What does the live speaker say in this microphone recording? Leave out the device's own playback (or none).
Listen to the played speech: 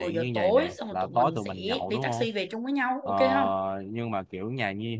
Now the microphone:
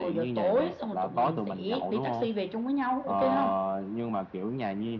none